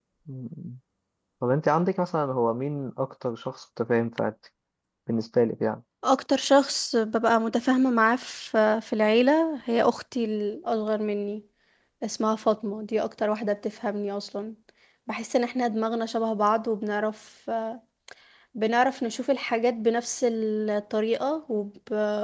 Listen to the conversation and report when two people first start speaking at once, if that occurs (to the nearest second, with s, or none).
none